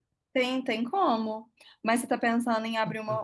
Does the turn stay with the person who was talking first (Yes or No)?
Yes